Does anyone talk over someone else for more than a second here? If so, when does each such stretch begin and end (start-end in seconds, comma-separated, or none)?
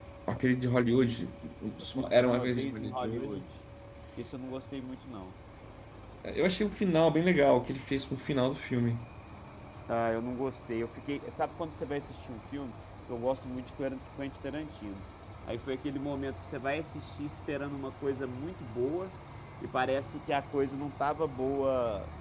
2.1-3.4